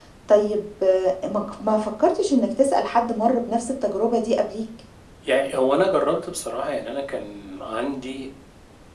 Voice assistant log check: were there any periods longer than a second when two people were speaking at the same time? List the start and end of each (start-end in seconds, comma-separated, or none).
none